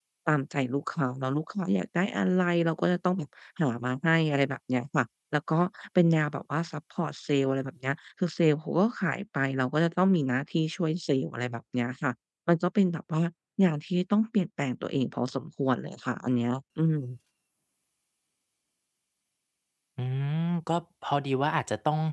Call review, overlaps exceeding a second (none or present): none